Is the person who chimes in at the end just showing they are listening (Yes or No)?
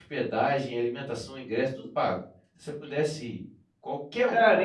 No